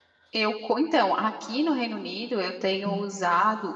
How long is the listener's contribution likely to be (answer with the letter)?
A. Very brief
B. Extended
A